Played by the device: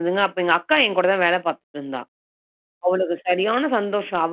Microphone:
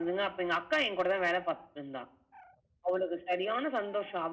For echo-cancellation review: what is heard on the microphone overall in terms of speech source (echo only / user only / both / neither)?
echo only